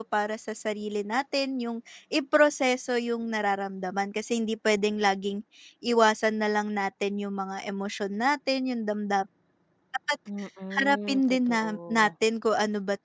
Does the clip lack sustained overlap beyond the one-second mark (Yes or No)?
No